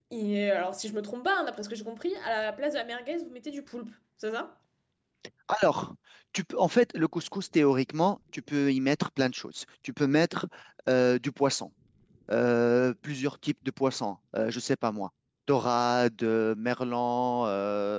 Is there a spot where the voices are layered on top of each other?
No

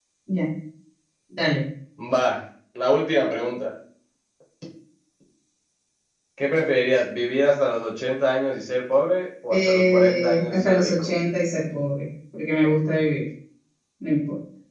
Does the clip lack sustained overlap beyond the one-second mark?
No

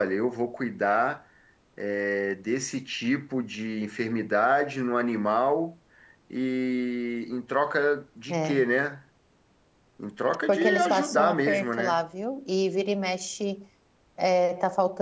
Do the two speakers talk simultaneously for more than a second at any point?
Yes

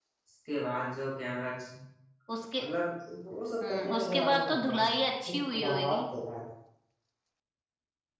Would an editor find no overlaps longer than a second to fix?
No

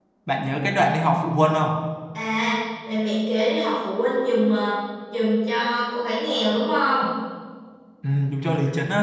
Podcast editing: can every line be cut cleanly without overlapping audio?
Yes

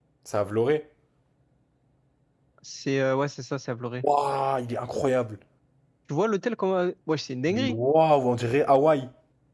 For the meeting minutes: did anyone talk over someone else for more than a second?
No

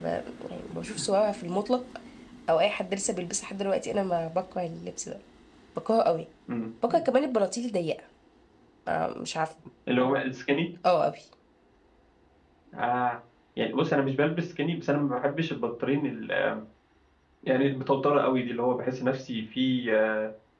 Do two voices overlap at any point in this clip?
No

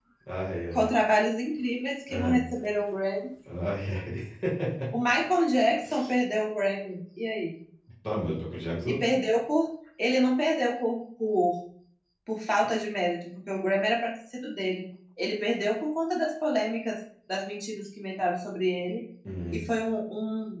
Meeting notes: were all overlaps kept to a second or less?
Yes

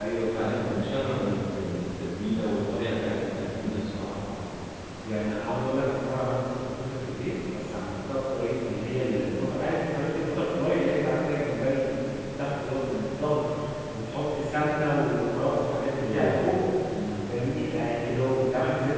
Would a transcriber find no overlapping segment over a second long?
Yes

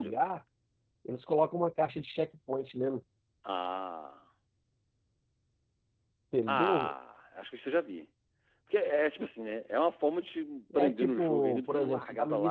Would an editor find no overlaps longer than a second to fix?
No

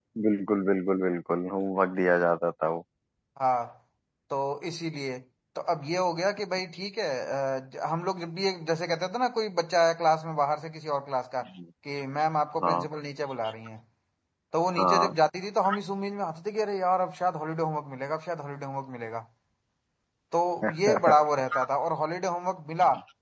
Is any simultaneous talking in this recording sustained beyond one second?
No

